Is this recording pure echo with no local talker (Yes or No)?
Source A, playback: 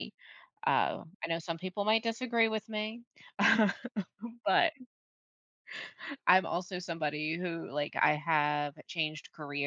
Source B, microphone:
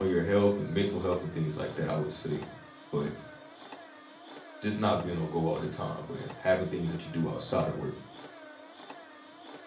No